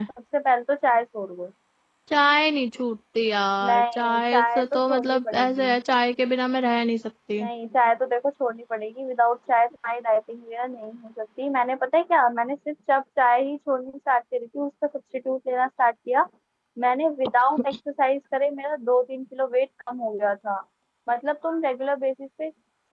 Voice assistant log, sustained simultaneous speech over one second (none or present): present